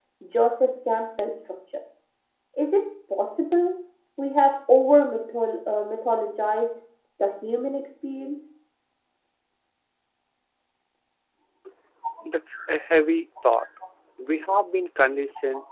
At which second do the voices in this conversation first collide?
none

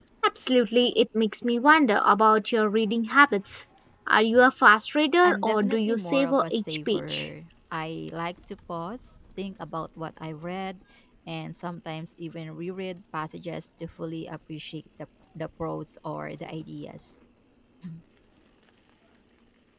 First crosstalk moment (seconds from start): 5.2 s

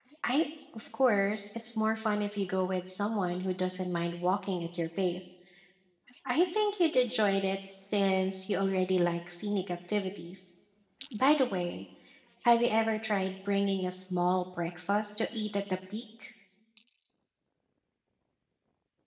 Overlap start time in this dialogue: none

